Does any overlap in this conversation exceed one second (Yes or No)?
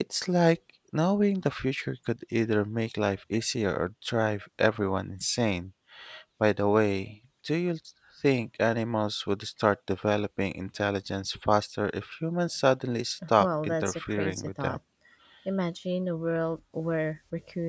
Yes